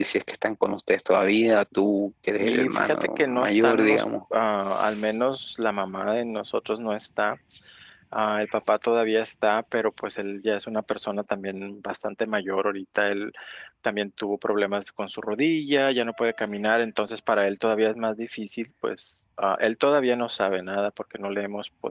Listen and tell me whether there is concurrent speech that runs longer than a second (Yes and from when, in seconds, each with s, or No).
Yes, from 2.4 s